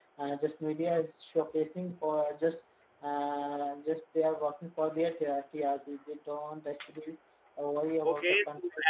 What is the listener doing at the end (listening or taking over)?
taking over